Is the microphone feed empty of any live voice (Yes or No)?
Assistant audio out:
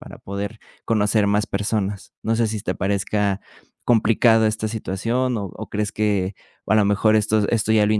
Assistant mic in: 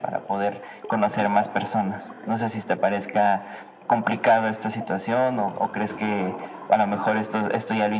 Yes